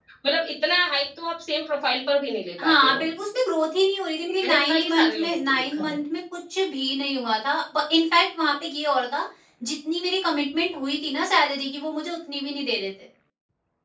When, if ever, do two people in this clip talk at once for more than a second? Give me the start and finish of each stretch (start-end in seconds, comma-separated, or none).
4.4-6.0